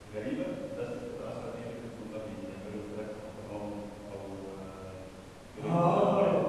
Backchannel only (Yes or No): No